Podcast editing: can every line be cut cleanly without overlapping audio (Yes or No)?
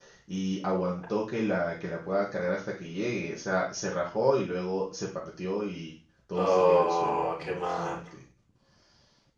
No